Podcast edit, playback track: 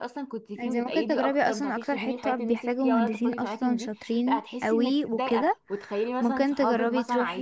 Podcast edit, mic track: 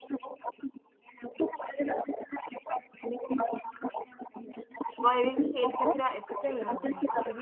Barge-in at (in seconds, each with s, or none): 5.0 s